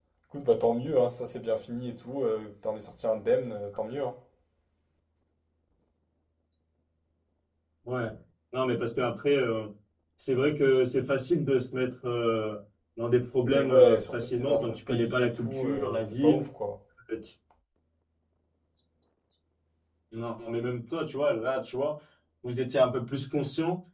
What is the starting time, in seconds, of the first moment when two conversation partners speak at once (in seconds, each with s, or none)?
13.5 s